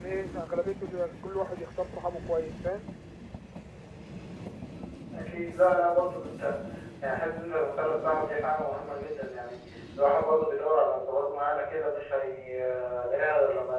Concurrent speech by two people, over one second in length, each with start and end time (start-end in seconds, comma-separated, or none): none